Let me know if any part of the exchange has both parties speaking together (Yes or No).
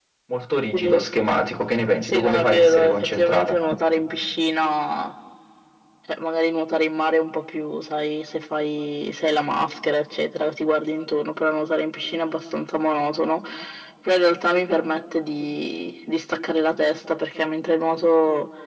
Yes